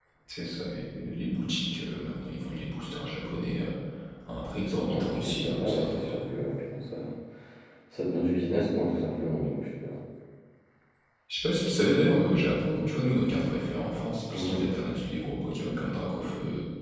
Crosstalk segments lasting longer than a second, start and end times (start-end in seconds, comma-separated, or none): 4.8-6.3